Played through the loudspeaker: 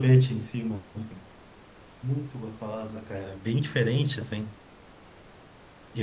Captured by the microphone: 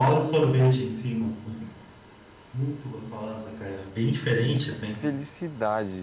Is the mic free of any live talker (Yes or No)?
No